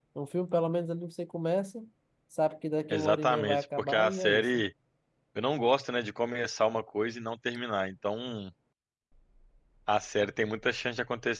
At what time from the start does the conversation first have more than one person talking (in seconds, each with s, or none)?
2.9 s